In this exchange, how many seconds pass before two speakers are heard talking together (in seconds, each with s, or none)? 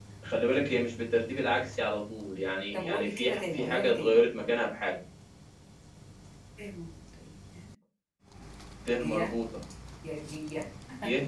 2.7 s